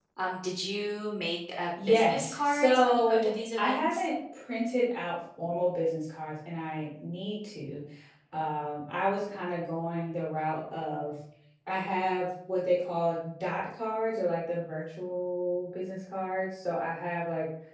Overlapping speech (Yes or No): Yes